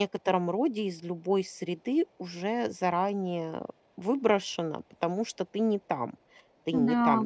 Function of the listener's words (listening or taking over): listening